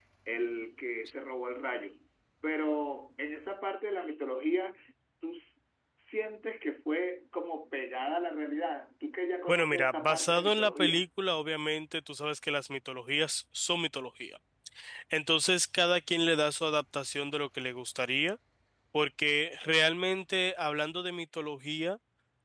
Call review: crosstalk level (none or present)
present